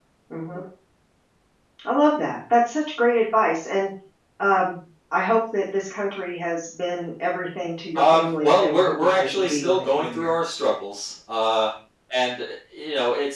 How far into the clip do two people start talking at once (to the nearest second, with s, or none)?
8 s